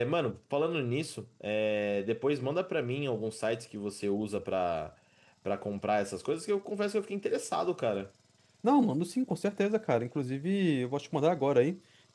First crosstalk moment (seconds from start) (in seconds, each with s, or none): none